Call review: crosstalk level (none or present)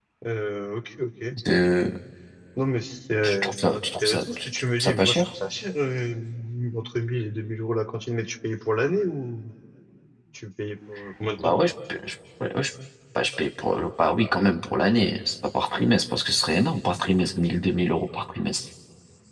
present